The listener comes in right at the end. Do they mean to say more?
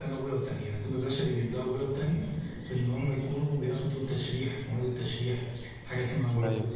No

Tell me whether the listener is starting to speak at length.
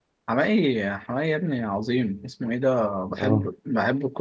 No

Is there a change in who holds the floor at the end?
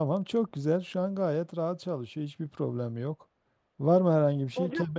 No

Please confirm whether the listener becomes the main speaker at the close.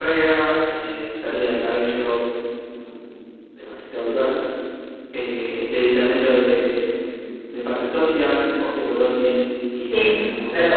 Yes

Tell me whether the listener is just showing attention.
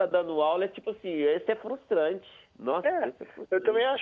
No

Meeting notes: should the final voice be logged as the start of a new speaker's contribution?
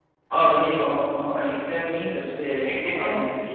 No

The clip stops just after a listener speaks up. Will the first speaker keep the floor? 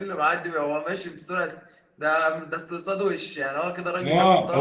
No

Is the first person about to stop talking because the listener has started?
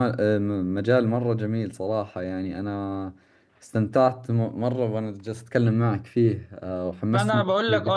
Yes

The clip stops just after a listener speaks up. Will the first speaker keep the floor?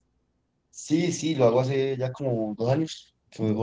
Yes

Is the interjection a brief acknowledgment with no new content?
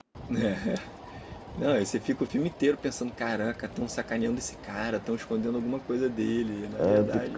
No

